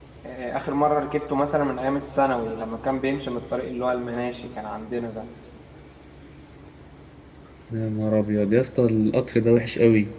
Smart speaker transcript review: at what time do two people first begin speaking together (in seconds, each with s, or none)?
none